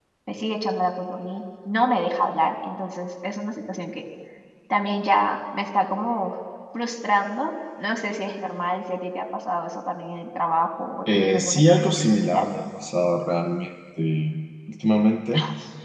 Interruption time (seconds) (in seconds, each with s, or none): 11.1 s